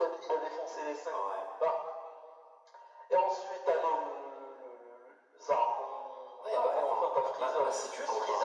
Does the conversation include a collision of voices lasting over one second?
Yes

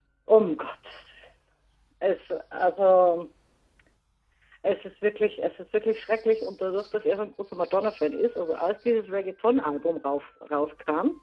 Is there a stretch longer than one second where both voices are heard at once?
No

